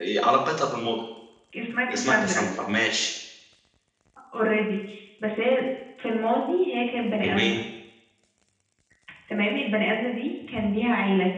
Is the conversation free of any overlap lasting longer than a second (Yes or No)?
Yes